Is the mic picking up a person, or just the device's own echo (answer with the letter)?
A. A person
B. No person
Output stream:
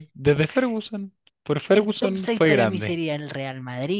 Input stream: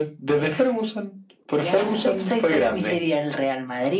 A